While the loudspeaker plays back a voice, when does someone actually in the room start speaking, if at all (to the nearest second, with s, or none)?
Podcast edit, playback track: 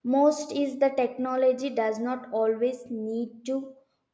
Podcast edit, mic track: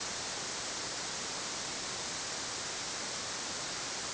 none